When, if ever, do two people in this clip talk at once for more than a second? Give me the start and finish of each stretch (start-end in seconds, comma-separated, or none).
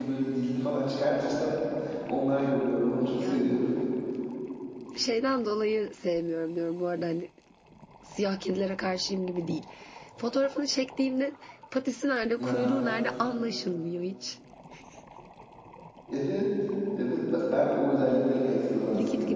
none